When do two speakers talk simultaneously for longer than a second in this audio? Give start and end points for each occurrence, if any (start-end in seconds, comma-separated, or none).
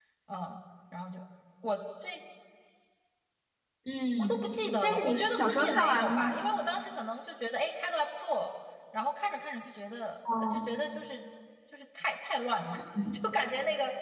4.8-6.3